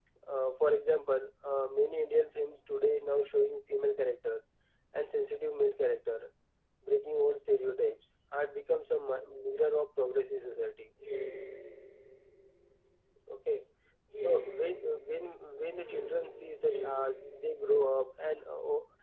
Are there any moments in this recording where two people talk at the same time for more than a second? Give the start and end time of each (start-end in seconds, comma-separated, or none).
none